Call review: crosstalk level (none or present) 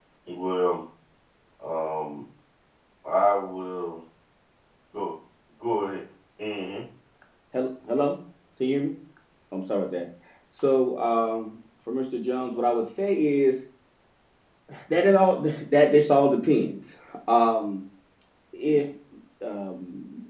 none